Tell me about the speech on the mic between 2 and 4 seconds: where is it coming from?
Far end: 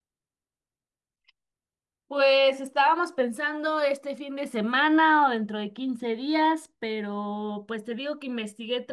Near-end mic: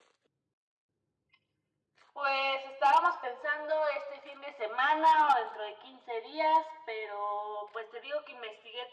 echo only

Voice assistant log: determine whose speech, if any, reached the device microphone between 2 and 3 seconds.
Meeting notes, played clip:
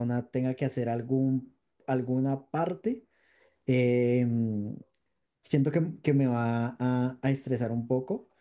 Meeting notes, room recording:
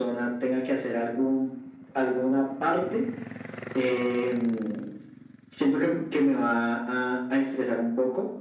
echo only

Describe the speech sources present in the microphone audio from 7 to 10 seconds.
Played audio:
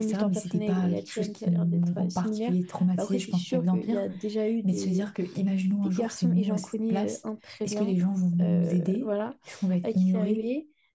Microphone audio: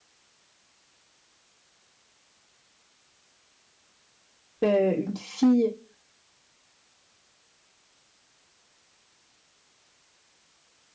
neither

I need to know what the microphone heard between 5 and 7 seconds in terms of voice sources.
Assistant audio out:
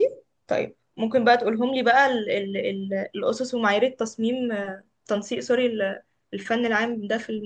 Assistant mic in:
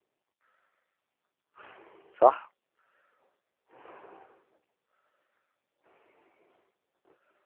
neither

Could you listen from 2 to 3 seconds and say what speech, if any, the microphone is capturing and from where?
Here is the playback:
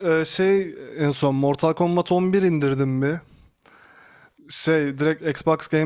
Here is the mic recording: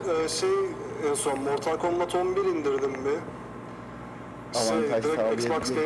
echo only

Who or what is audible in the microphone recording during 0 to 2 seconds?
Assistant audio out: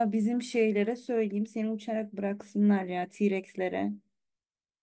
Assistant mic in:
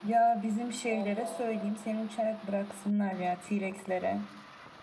both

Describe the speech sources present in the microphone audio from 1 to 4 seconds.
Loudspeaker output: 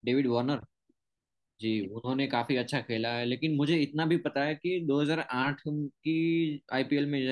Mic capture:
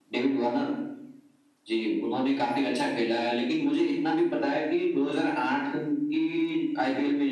echo only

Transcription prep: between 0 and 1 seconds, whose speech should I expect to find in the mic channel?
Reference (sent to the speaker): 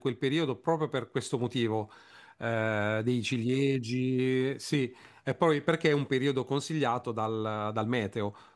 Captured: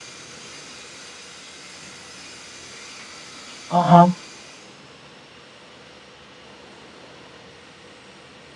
neither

